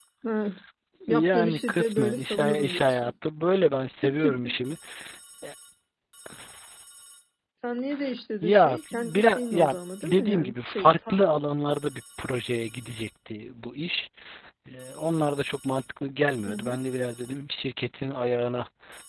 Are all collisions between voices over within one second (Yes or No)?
No